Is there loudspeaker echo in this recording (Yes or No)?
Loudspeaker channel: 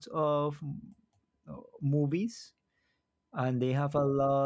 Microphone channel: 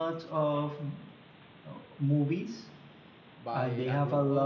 Yes